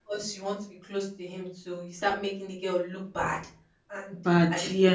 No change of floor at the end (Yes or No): Yes